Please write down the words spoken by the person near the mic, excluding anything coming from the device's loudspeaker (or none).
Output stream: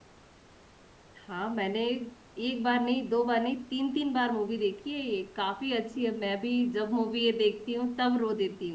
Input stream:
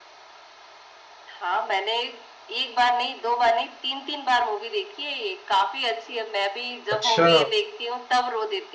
अच्छा